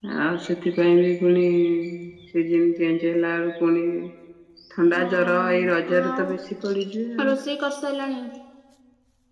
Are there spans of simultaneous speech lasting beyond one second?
Yes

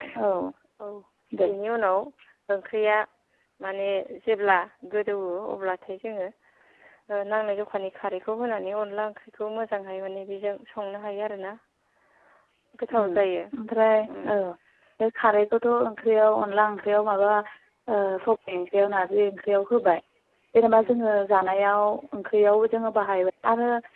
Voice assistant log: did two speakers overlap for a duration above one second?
No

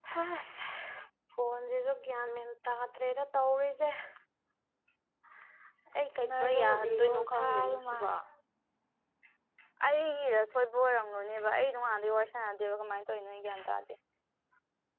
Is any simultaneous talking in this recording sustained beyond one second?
Yes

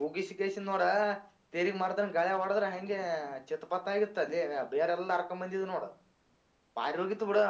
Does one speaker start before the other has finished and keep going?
No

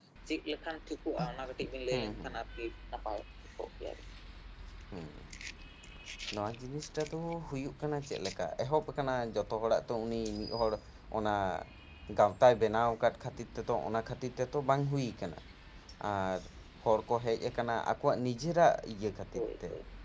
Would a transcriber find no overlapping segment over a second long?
Yes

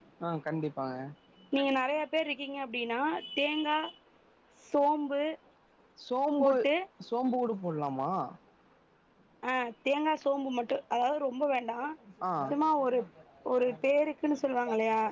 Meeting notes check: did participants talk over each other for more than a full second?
No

